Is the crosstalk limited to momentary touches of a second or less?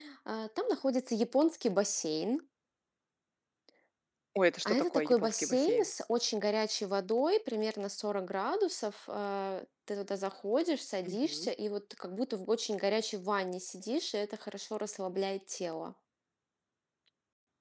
No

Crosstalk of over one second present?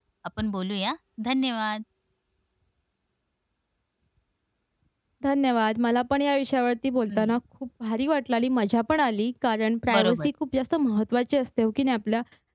No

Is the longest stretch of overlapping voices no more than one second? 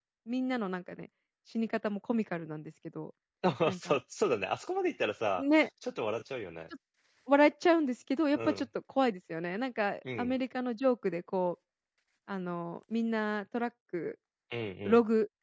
Yes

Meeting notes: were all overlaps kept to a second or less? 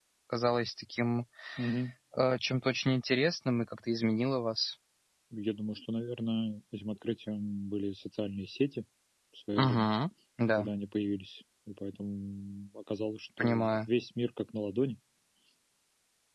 Yes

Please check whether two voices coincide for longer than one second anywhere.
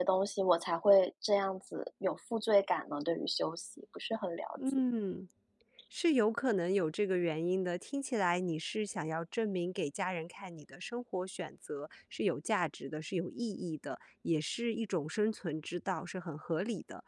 No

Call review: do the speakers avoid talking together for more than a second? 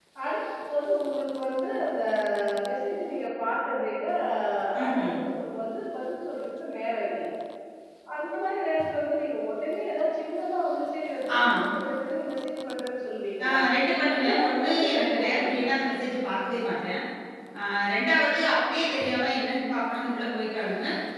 No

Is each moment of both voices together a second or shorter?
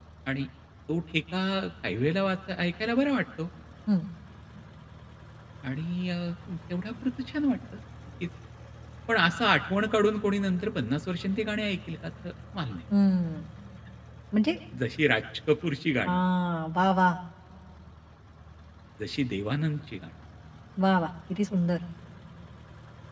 Yes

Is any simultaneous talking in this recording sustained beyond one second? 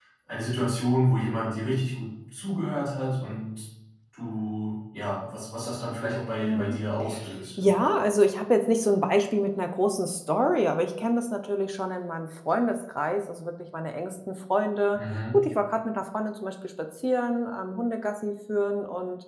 No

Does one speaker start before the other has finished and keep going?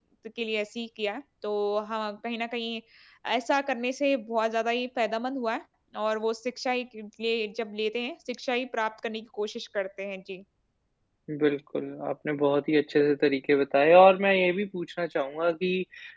No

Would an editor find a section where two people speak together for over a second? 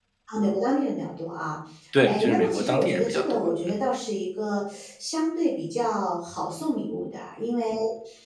Yes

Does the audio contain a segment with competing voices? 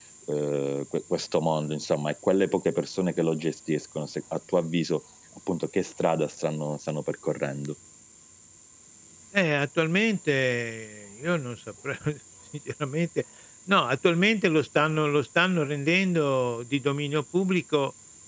No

